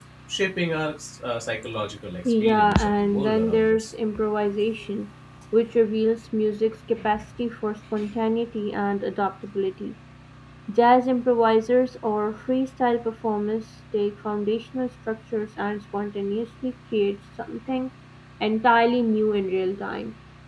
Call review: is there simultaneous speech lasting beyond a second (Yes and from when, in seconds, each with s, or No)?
Yes, from 2.2 s